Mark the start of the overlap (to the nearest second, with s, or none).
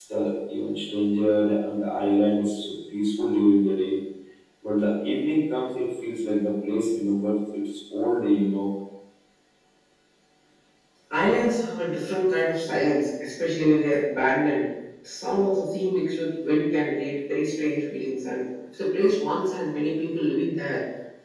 none